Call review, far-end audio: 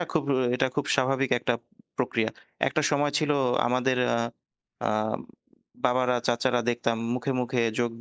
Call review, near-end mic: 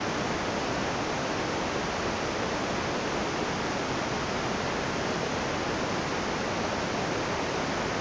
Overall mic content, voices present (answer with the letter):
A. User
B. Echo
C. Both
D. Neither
D